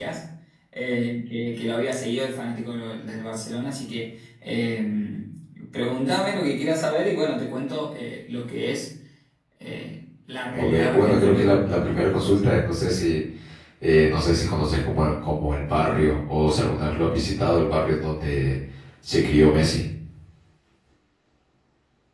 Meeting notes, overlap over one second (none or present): present